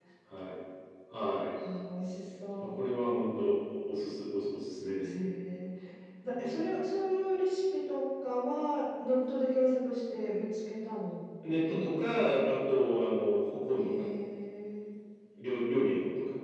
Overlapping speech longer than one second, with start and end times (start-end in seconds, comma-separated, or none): none